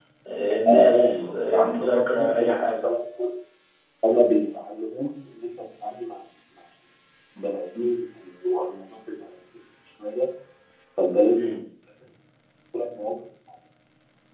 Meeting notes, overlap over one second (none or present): present